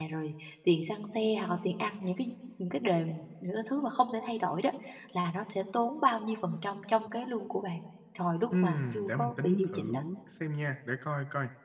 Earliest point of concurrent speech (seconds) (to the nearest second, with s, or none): 9 s